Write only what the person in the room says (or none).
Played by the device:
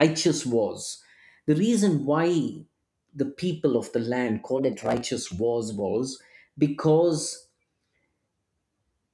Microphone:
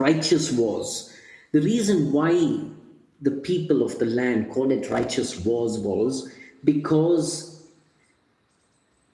none